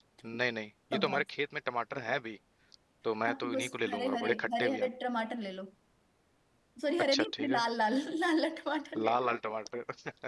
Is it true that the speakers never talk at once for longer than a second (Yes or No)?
No